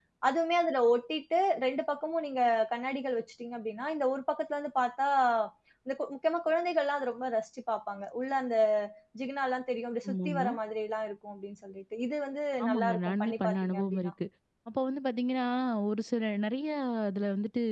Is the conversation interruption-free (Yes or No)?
No